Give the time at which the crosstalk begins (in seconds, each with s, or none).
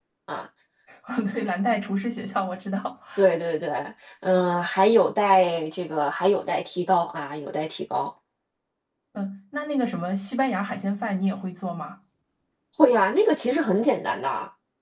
none